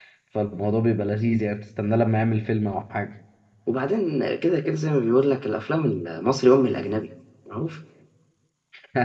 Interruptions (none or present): none